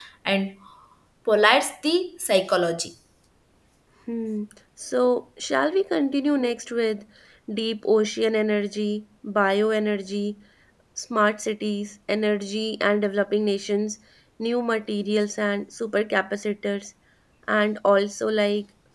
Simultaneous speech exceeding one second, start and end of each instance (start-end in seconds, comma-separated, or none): none